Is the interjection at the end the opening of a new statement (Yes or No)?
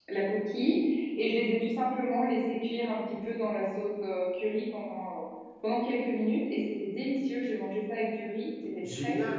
Yes